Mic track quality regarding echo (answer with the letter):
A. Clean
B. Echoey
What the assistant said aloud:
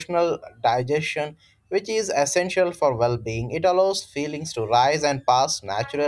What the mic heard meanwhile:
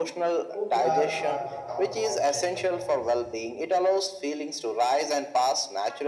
B